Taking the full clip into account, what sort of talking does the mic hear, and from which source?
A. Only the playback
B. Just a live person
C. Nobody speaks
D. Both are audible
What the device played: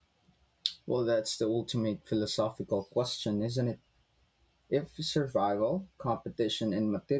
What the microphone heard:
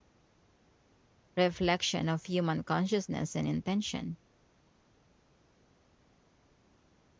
B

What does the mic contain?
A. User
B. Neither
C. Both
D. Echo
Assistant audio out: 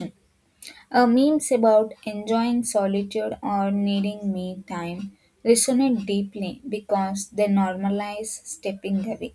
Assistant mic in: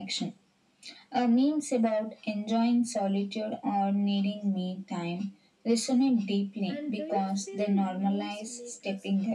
C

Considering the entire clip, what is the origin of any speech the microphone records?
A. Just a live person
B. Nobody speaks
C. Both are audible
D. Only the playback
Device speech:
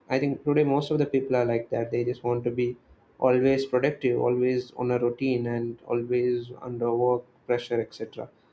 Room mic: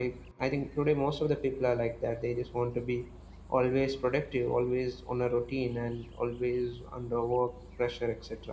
D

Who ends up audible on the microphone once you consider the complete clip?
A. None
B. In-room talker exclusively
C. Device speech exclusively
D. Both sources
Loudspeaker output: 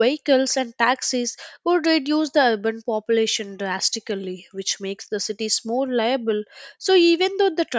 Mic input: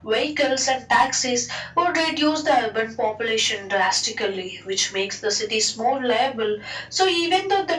C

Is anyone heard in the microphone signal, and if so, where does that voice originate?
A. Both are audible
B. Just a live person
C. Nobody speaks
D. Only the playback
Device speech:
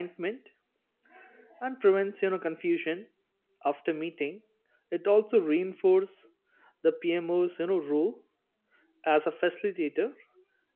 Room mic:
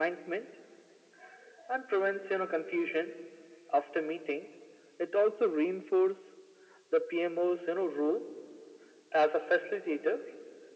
D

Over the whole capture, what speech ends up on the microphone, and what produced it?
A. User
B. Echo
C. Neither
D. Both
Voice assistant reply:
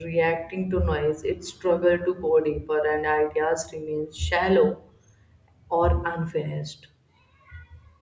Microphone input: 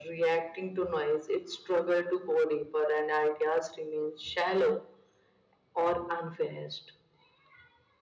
B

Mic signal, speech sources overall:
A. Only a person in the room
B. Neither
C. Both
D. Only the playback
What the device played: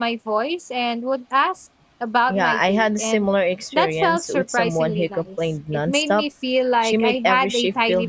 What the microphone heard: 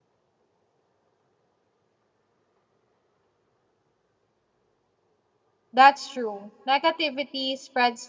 A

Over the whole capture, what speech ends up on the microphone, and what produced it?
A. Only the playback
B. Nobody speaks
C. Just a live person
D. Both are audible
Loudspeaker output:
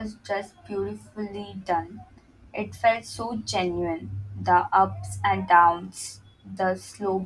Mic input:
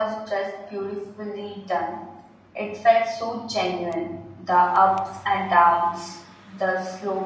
A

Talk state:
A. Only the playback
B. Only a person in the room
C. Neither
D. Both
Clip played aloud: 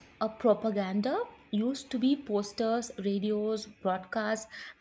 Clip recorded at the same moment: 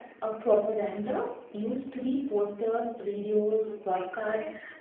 D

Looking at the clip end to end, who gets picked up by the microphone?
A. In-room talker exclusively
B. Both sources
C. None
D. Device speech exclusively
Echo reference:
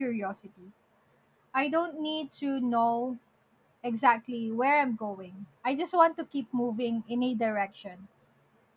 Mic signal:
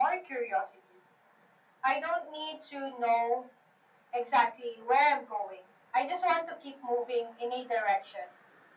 D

